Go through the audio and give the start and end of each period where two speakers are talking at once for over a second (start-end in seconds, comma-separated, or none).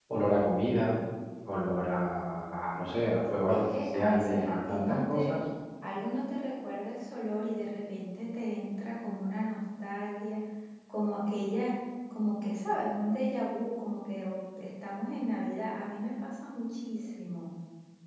3.5-5.4